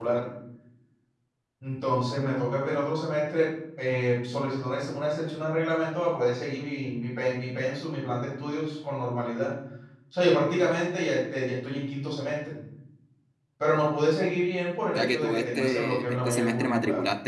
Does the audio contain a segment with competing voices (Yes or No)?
Yes